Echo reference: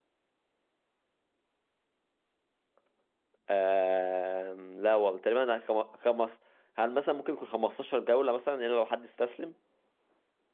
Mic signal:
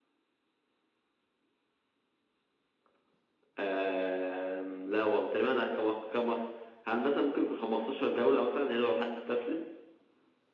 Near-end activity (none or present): none